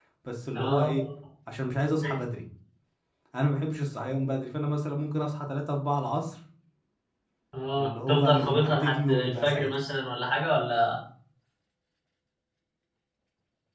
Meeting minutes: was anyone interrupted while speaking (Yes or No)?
Yes